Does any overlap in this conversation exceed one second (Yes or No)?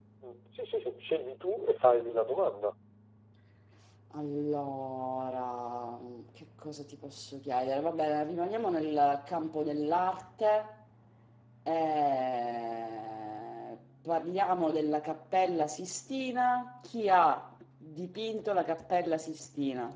No